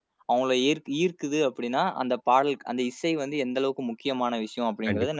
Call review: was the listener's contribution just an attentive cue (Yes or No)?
No